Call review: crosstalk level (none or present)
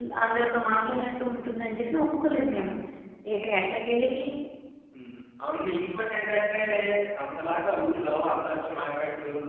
none